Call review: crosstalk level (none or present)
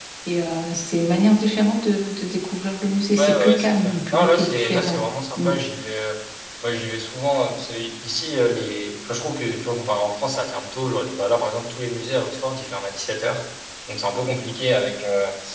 present